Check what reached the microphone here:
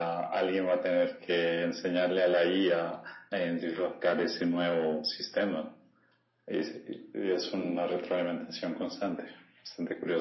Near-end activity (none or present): none